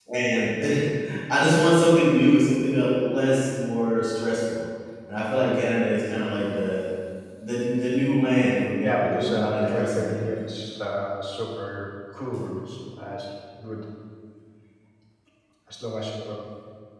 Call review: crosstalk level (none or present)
present